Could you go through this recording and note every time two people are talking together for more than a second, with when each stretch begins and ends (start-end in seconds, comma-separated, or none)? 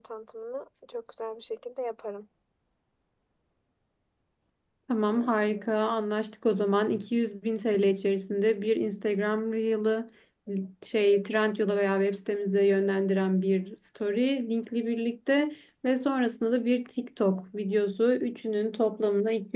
none